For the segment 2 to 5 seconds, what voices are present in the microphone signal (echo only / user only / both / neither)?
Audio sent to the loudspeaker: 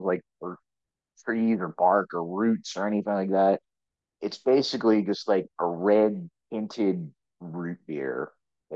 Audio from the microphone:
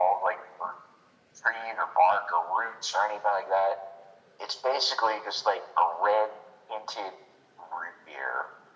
echo only